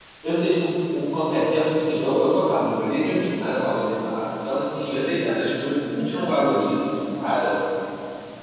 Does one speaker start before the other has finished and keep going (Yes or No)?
No